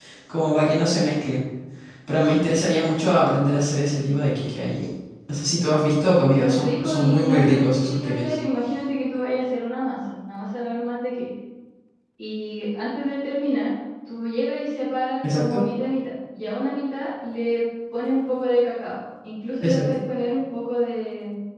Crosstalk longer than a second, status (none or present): present